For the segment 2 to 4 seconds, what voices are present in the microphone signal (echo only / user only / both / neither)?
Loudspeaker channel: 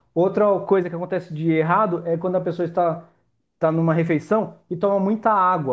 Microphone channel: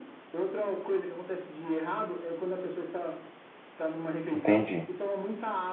echo only